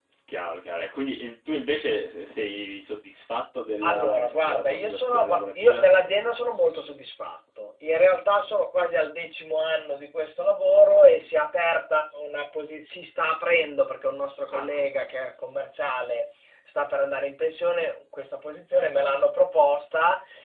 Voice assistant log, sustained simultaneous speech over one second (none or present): present